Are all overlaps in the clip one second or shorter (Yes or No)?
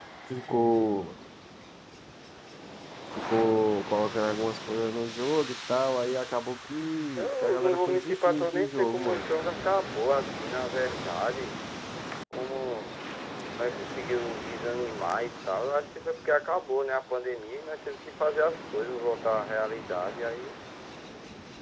No